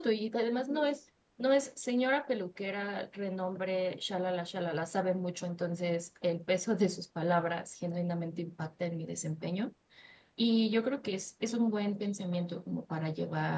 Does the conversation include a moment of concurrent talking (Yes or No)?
No